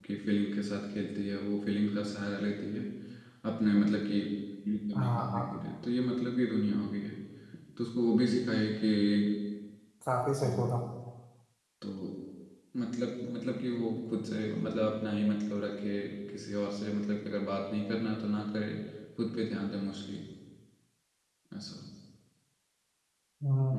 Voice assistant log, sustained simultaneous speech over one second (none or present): none